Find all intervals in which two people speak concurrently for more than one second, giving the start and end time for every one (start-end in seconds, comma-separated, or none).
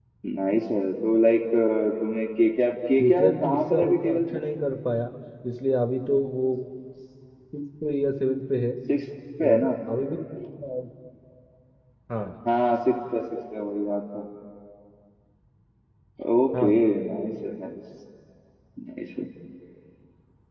3.0-4.2